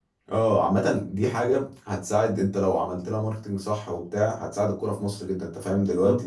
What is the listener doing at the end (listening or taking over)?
taking over